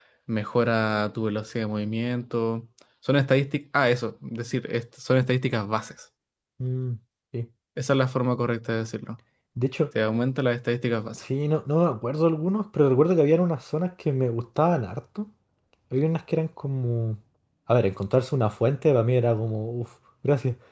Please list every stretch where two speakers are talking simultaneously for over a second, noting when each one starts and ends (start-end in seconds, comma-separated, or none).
none